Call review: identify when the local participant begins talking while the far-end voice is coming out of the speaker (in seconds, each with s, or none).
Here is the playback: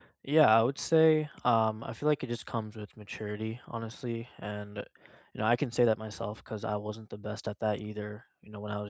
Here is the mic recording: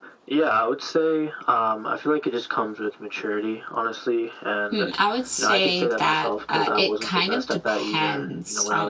4.7 s